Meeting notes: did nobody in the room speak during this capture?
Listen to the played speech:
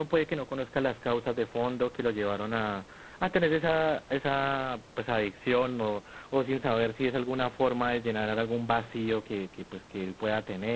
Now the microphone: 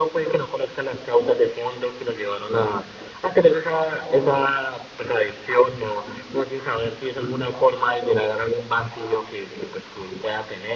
Yes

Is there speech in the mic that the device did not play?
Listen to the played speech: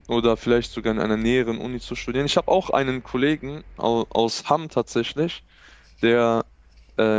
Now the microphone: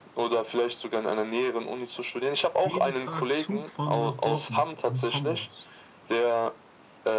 Yes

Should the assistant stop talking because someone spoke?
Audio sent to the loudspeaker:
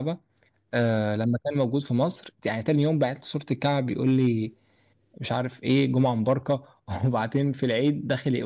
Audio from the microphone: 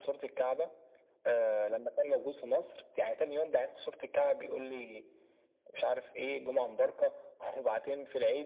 No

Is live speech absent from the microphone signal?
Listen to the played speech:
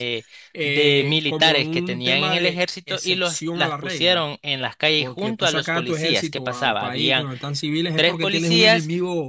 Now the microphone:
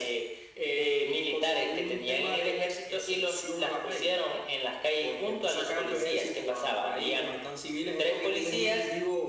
Yes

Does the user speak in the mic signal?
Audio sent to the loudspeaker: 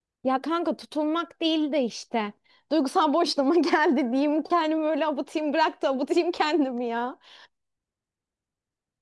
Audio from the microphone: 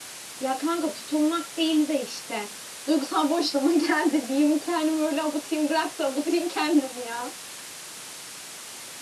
No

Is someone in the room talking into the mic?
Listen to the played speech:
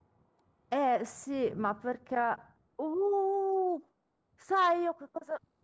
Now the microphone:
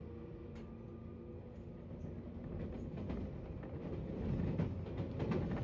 No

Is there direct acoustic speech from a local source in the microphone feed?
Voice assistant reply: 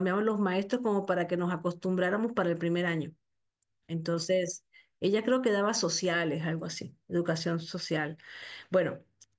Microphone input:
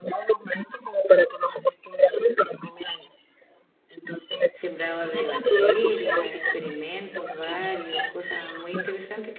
Yes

